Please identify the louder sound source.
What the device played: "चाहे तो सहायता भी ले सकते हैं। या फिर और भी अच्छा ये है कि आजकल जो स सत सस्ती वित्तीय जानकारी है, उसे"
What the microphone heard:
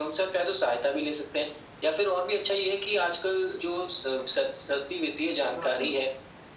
echo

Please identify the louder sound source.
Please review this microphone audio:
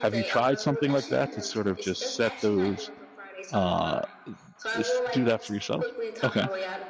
user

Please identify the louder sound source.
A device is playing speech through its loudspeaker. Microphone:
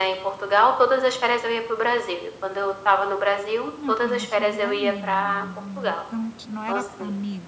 echo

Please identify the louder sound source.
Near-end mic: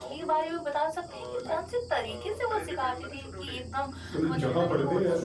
user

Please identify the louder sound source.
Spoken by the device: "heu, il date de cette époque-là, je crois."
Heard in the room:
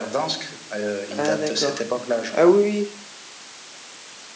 user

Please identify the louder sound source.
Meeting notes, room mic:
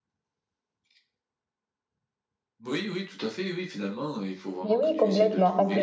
user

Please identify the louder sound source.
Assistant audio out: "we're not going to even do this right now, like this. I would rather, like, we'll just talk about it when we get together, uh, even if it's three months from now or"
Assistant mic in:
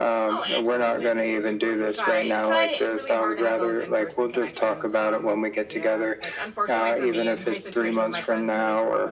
echo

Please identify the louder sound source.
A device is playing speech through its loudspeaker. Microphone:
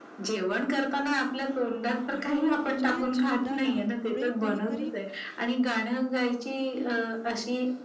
echo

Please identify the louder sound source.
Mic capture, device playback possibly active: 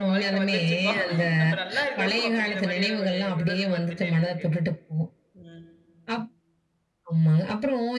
echo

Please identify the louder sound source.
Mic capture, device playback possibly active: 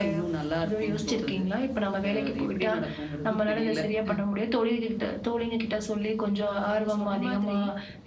echo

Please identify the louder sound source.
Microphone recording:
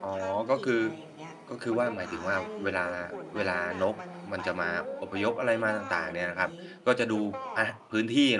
user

